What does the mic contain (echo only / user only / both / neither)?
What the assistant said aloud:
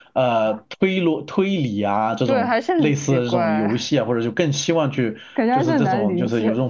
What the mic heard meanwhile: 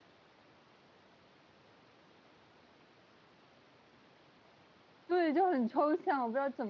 user only